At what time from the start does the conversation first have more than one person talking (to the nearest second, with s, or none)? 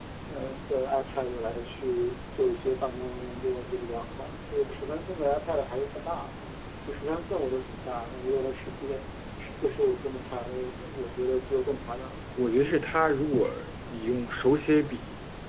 none